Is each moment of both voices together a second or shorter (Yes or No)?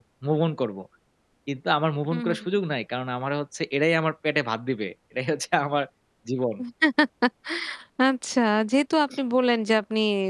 Yes